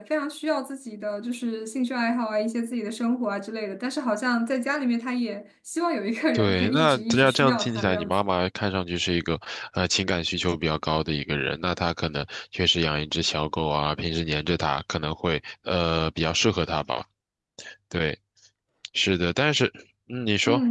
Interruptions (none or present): present